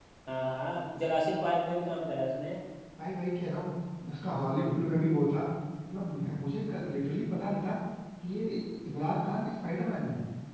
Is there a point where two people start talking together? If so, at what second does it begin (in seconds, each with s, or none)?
none